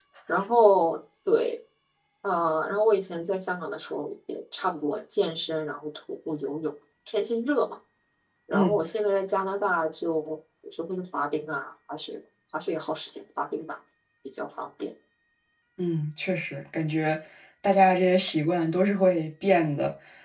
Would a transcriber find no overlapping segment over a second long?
Yes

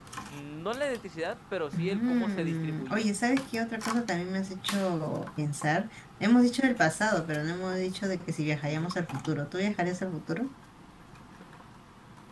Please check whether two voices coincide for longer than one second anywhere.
Yes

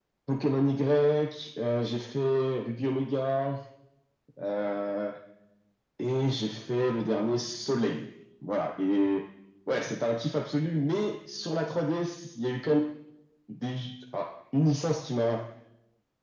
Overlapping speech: No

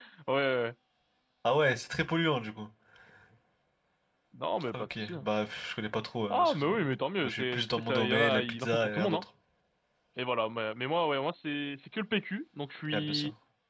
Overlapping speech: Yes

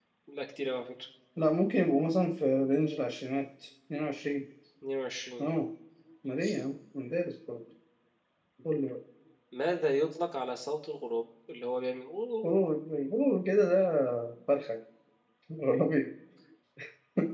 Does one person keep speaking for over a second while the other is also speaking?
No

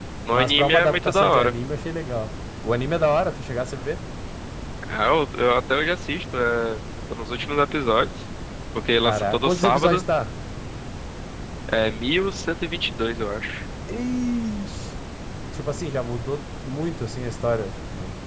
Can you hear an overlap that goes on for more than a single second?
Yes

